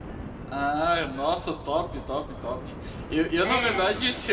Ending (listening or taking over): listening